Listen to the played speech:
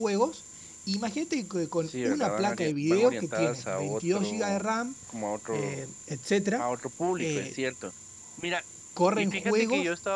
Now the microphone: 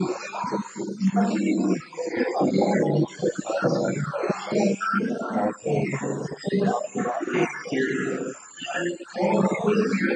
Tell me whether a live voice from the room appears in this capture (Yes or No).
No